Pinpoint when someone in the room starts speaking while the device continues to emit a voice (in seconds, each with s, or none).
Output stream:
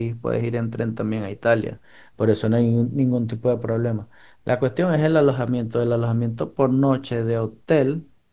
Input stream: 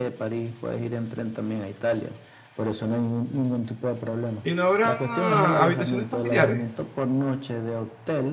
4.4 s